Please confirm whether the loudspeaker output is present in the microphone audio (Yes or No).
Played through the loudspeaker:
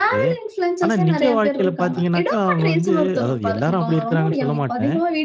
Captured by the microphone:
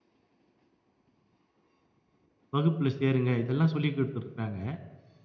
No